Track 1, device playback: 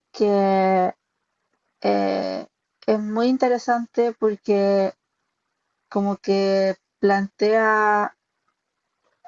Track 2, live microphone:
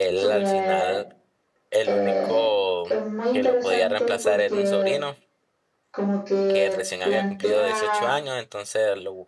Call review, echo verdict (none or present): present